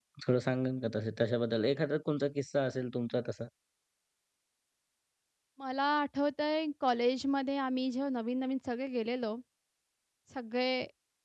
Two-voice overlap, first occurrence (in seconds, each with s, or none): none